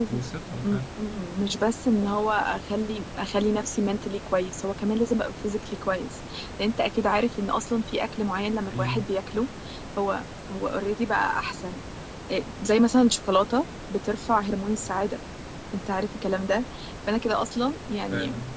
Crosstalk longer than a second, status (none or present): none